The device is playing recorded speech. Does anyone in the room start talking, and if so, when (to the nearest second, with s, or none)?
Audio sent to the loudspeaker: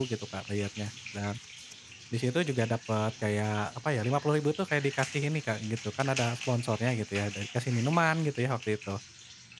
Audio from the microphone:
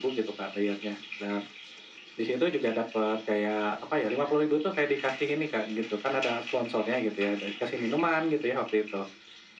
none